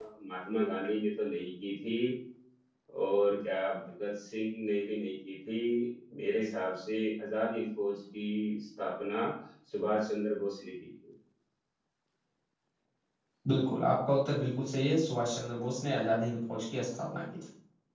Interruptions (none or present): none